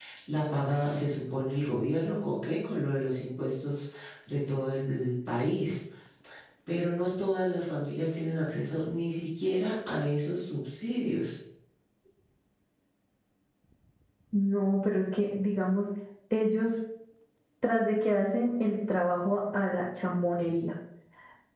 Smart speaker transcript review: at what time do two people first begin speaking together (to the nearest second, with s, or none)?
none